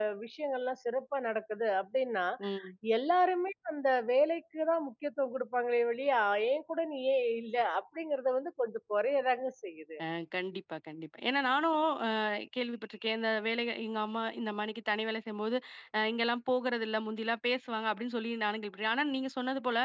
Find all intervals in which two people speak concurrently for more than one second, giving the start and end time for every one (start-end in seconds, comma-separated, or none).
none